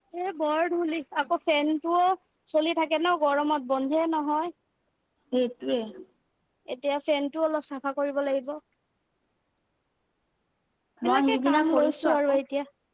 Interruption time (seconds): 11.1 s

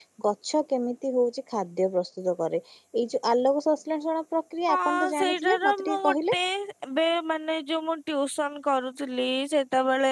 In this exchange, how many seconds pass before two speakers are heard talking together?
4.7 s

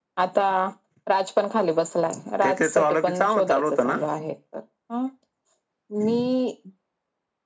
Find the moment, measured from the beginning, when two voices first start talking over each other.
2.4 s

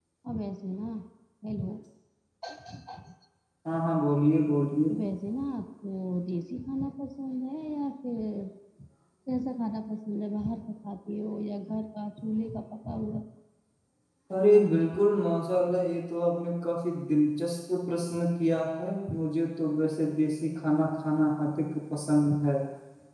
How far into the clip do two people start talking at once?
none

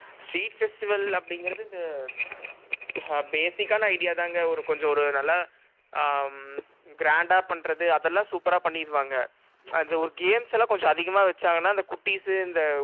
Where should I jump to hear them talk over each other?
none

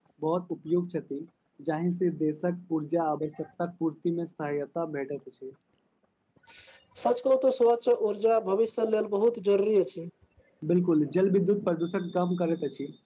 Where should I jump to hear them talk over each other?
none

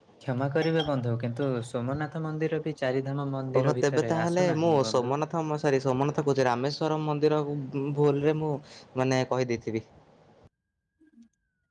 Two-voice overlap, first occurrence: 3.5 s

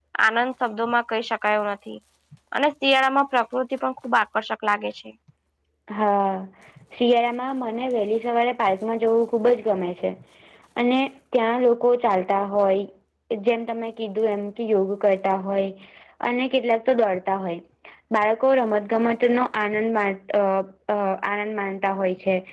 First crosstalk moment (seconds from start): none

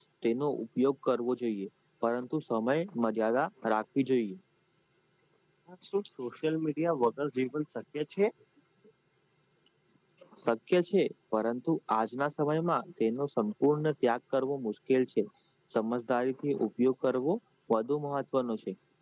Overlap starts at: none

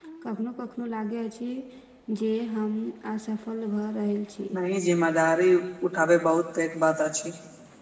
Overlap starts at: none

